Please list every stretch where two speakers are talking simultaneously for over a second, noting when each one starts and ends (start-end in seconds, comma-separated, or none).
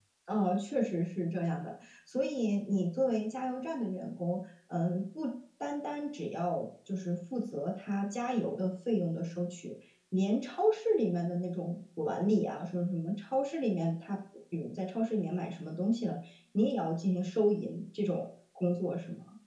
none